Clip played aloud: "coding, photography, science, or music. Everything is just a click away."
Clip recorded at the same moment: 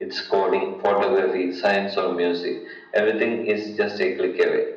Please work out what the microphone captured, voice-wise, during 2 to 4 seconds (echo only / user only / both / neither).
echo only